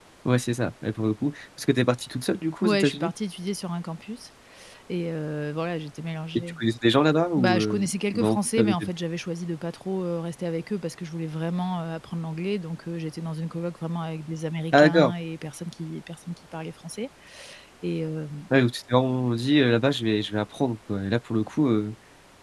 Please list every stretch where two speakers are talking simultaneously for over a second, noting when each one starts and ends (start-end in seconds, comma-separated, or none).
7.3-8.9